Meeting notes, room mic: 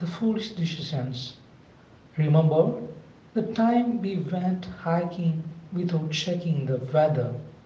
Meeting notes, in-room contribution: present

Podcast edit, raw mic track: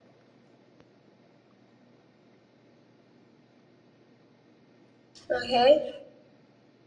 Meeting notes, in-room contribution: present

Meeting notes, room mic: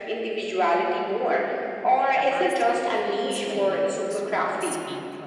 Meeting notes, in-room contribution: present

